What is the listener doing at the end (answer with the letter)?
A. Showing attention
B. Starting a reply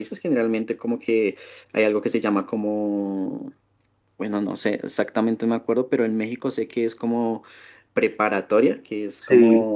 A